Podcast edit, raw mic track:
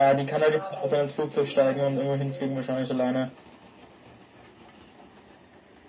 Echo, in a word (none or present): present